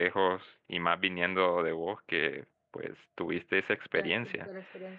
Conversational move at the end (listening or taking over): taking over